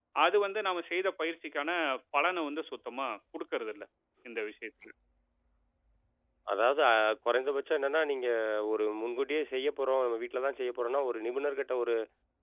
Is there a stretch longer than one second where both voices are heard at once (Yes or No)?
No